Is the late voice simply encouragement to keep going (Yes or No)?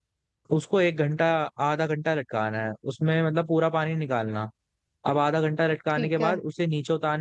Yes